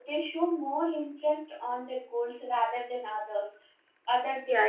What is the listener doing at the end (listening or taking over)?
taking over